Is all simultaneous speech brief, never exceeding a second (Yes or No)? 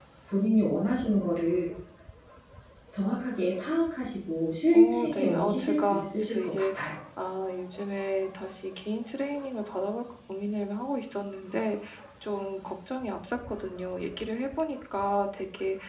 No